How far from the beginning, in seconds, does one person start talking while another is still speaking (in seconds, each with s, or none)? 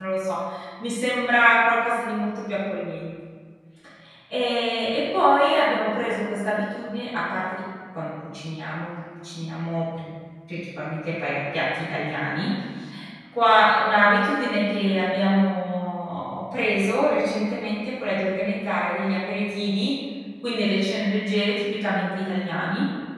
none